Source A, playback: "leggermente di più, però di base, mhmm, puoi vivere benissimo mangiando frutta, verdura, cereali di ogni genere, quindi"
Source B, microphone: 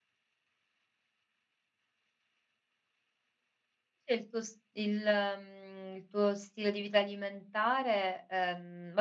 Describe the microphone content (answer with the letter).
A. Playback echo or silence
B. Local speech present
B